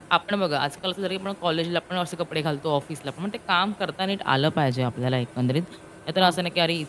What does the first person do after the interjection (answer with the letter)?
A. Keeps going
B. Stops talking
A